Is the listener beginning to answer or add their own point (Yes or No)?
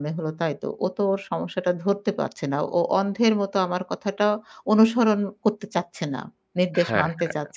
Yes